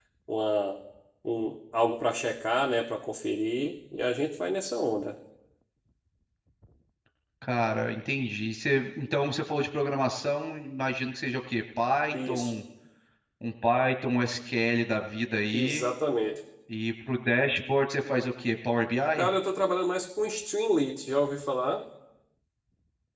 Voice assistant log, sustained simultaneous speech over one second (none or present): none